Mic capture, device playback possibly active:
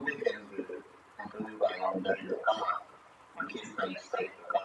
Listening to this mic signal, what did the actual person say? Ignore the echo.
none

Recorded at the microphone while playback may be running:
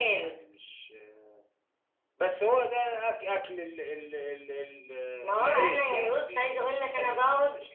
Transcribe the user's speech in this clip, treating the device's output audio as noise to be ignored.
none

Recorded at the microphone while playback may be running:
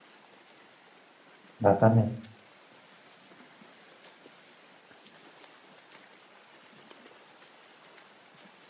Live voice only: exatamente.

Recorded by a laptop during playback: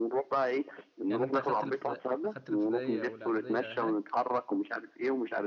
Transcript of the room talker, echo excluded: يعني انت اخدت الابتدائي اخدت الابتدائيه والاعداديه هناك

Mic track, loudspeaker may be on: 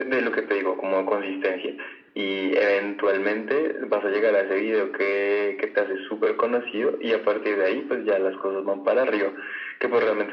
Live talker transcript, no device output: none

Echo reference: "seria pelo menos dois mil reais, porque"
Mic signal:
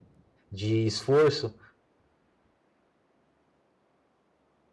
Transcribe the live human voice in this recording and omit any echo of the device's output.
de esforço

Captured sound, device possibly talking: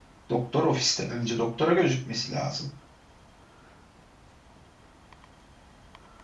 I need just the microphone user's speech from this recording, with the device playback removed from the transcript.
doktor ofiste önce doktora gözükmesi lazım.

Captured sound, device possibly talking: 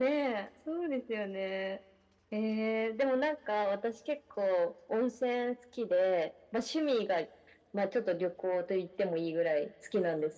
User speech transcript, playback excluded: none

